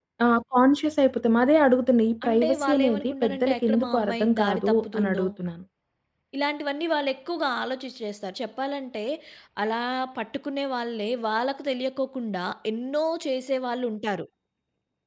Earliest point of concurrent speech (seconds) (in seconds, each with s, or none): 2.2 s